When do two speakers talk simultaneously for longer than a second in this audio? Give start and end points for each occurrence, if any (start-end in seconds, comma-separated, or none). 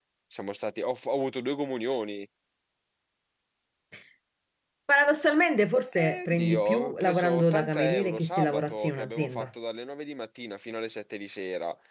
5.9-9.5